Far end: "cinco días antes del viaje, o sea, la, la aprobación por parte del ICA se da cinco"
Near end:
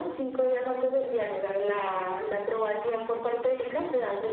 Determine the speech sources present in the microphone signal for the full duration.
echo only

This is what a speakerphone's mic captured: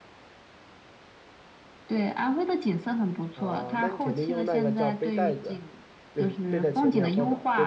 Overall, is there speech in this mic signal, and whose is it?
both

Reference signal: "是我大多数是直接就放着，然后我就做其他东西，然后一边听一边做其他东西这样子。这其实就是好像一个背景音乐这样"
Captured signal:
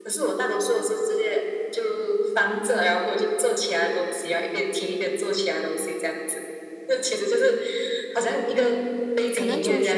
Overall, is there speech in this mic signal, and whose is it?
both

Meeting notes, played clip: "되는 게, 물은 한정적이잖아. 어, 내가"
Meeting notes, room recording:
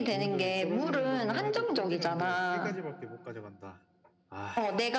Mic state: both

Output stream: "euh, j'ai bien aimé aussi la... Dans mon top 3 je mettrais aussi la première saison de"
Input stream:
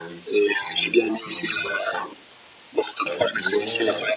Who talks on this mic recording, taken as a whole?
both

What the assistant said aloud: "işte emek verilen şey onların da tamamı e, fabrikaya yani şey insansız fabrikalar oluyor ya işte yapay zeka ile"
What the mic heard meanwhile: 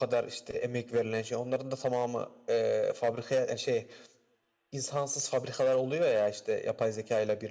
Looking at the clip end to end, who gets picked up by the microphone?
echo only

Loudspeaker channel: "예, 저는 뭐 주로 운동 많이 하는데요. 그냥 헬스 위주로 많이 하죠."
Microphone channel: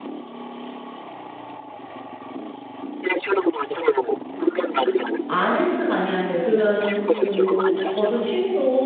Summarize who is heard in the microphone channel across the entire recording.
both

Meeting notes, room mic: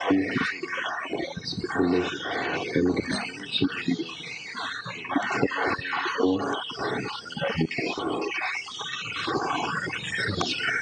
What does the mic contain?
echo only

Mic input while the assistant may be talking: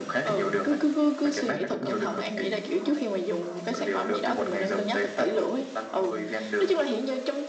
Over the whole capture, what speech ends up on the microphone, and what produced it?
echo only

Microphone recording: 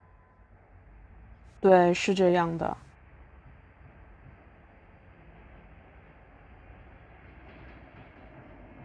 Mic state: user only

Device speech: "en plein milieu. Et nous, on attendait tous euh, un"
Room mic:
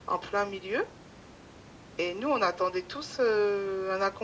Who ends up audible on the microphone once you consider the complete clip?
echo only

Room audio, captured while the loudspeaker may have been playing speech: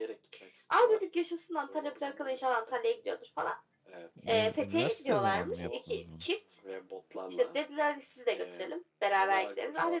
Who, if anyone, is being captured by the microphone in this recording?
both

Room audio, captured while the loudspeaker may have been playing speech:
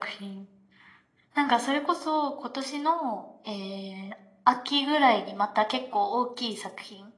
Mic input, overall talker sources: echo only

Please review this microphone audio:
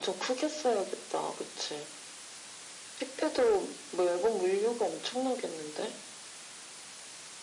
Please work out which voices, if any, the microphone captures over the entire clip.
echo only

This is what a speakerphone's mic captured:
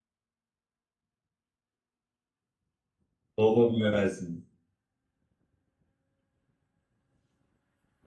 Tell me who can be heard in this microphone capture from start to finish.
user only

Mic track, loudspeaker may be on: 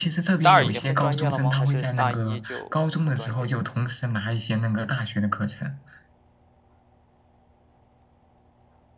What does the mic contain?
both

